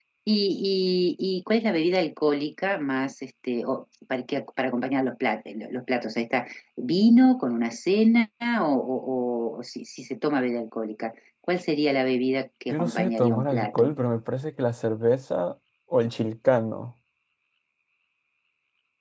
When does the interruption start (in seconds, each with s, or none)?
12.7 s